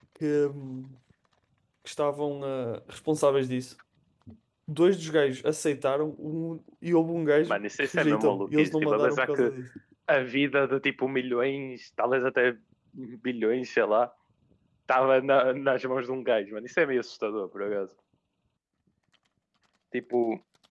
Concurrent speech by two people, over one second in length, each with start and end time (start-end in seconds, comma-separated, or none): 7.5-9.5